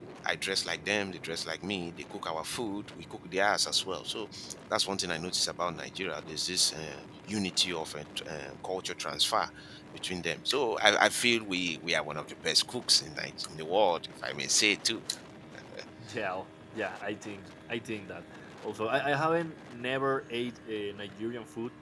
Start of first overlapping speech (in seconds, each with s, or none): none